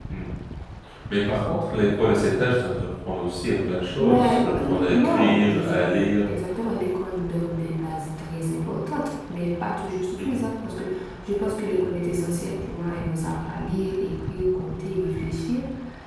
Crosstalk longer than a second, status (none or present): present